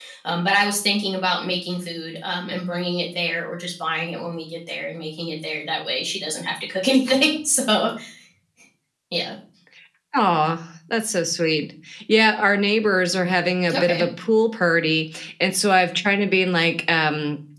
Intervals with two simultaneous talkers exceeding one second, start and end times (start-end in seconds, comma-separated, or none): none